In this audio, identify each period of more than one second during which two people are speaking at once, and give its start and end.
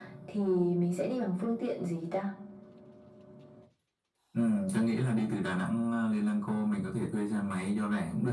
none

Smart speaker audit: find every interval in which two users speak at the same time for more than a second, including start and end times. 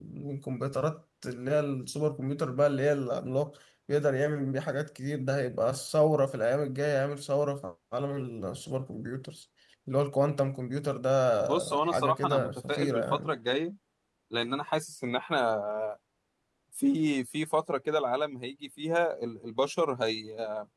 11.5-13.3

